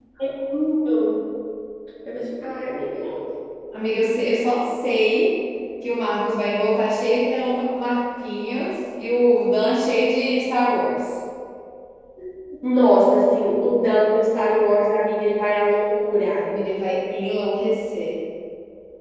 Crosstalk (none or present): none